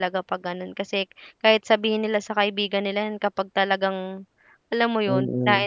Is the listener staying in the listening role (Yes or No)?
No